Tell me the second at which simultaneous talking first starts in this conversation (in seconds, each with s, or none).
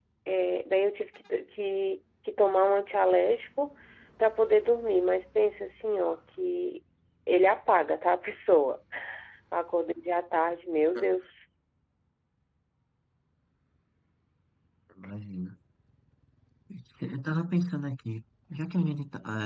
none